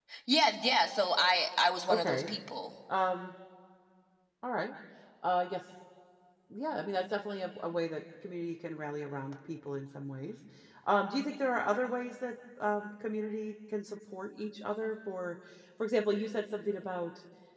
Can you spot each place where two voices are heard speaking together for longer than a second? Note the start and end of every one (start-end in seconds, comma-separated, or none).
none